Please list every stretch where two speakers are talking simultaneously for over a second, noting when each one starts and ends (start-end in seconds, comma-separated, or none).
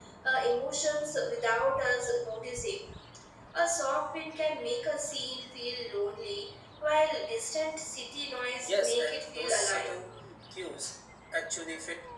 8.6-9.9